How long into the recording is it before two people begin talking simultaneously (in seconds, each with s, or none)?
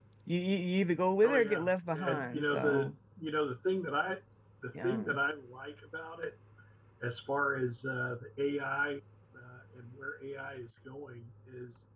1.2 s